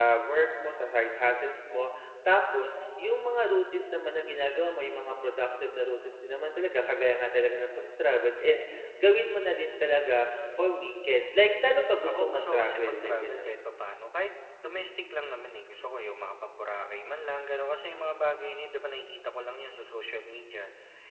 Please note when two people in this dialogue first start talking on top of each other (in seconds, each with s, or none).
12.1 s